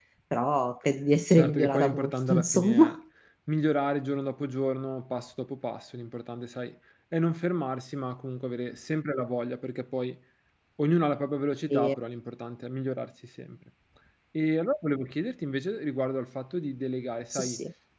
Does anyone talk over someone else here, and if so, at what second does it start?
1 s

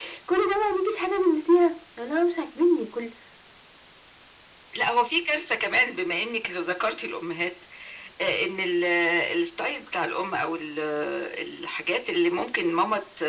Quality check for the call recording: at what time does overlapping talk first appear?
none

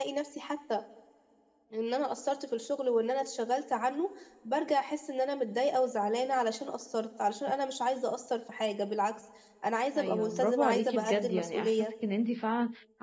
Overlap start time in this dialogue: 10 s

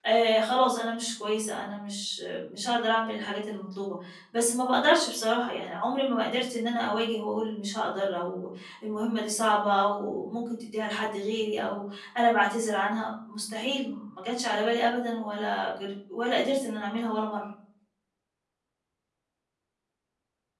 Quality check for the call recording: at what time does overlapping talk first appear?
none

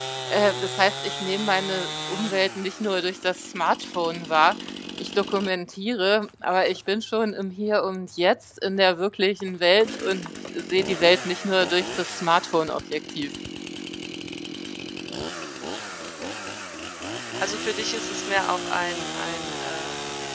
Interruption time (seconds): none

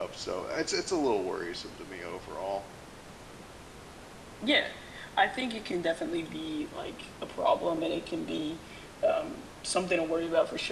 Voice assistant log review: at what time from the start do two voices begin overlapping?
none

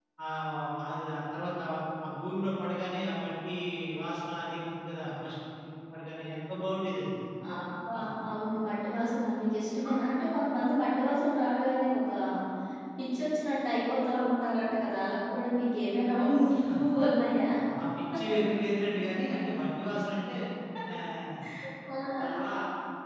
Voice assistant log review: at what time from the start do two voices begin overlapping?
none

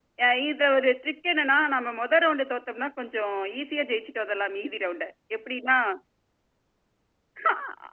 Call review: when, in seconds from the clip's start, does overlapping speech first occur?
none

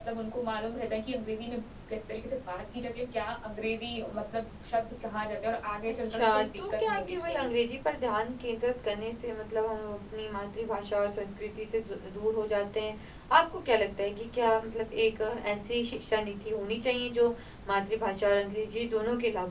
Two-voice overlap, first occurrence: 6 s

